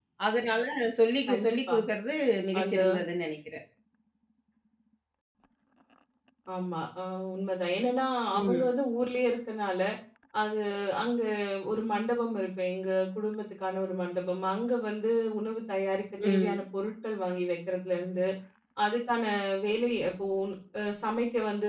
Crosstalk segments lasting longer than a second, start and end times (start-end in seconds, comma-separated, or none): none